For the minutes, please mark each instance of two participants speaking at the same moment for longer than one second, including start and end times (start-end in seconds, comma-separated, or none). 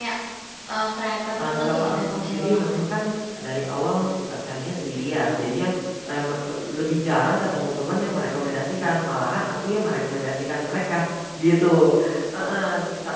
1.4-2.9